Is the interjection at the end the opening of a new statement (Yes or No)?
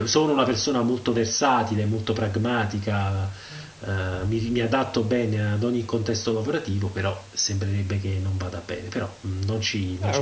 Yes